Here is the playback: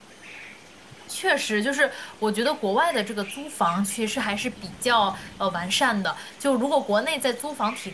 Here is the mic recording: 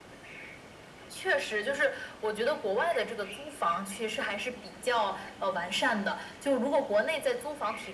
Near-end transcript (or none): none